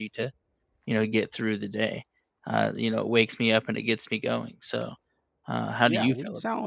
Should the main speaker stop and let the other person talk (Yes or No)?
Yes